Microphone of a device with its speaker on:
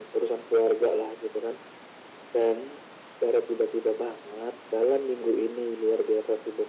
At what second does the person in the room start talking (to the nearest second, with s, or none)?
none